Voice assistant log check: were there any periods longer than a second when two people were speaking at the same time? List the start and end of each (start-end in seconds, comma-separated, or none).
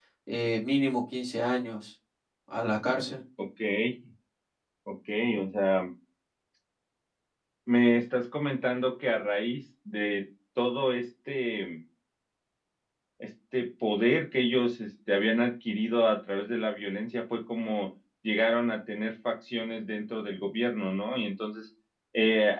none